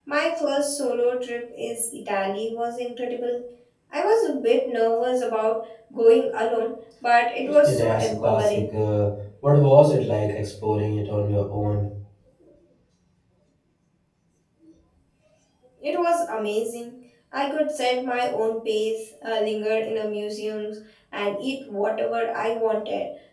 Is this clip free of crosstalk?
No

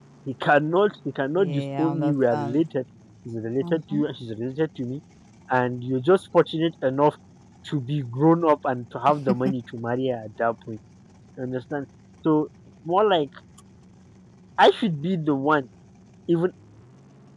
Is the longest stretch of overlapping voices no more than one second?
No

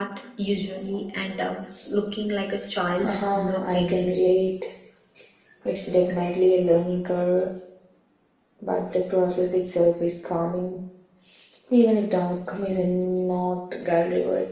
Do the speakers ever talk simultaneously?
Yes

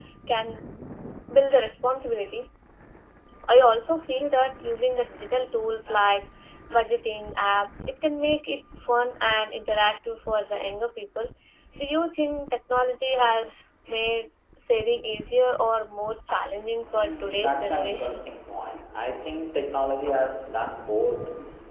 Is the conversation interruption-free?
No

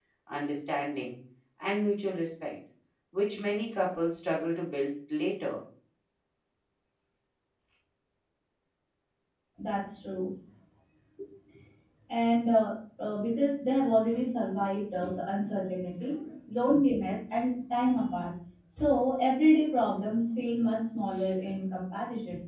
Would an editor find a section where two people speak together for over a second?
No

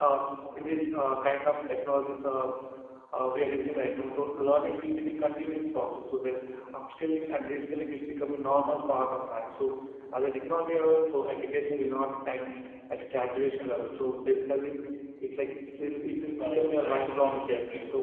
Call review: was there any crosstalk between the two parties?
Yes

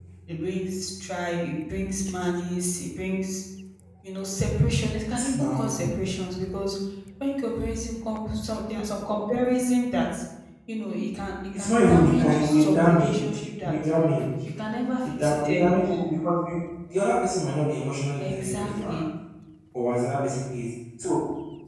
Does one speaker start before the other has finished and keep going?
Yes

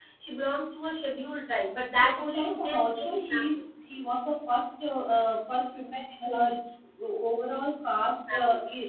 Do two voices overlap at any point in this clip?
Yes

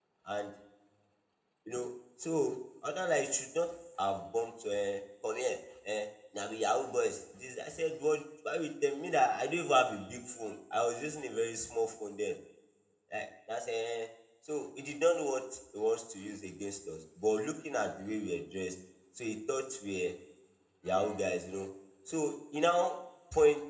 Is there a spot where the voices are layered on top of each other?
No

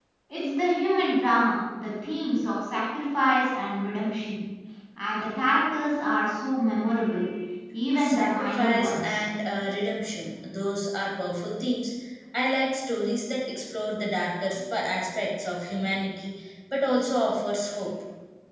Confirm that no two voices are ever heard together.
No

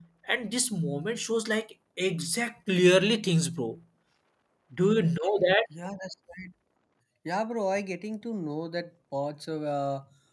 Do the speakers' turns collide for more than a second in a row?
No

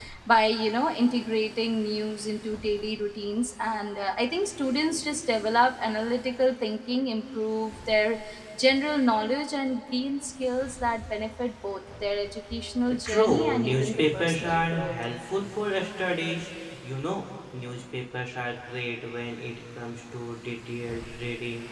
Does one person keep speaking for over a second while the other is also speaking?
Yes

